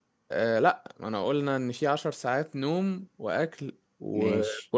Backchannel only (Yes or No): Yes